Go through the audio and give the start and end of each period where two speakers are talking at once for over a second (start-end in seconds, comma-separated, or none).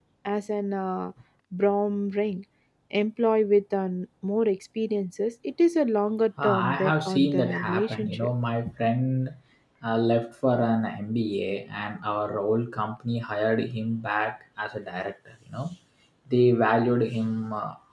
6.4-8.3